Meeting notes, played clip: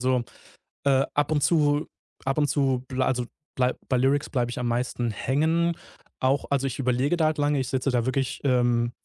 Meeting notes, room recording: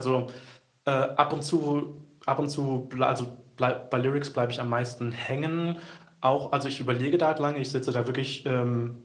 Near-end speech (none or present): none